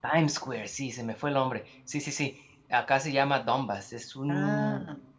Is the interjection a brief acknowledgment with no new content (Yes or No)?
Yes